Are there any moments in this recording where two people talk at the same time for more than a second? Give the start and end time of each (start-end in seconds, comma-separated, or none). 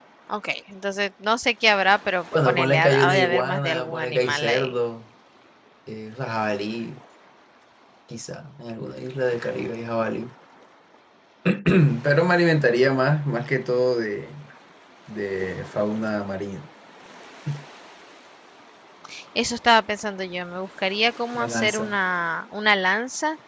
2.5-4.7